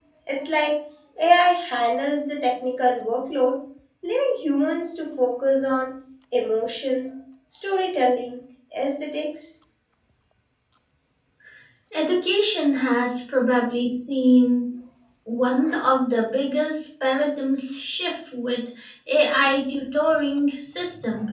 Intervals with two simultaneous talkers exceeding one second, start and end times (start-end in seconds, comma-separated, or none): none